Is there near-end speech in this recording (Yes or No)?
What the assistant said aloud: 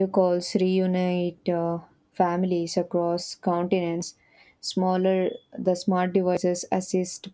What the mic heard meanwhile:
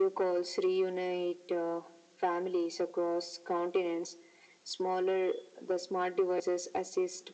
No